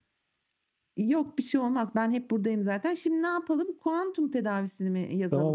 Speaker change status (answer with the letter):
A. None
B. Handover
B